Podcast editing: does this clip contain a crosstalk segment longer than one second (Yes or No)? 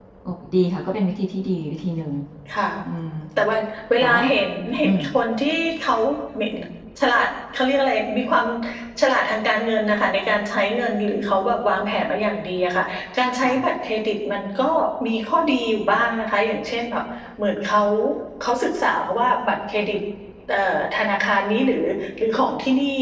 No